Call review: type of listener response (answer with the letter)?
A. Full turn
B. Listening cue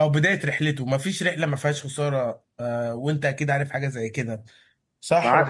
A